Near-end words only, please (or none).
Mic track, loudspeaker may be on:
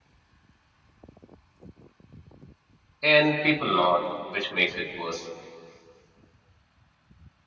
and people nod, which makes it worse.